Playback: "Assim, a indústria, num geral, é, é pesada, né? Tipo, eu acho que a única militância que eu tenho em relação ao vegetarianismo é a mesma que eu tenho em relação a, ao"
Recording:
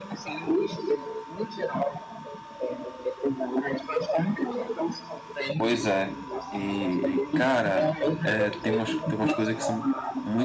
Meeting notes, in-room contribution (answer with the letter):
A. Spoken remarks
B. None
A